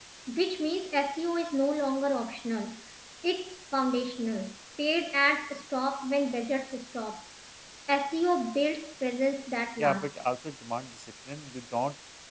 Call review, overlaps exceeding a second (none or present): none